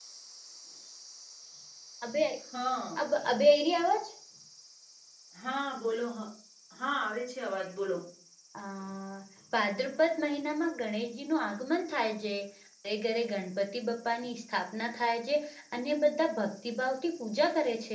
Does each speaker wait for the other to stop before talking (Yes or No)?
Yes